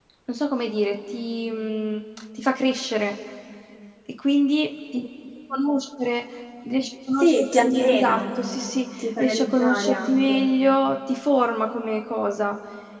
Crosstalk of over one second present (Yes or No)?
Yes